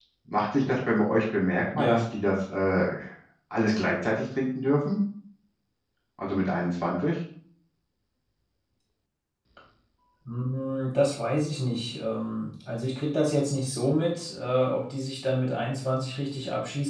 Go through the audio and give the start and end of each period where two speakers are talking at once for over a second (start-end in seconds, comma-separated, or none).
none